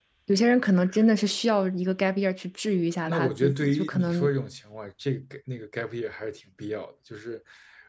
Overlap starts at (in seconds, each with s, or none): 3.1 s